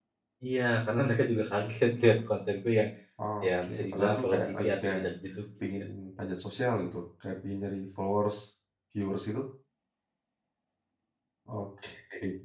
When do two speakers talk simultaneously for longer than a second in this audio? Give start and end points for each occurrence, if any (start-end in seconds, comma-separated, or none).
3.4-5.0